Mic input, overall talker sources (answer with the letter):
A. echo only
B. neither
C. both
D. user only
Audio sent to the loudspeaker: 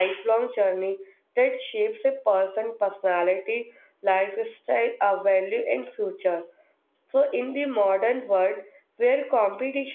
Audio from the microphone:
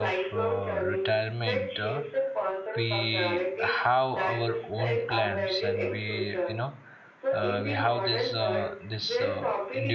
C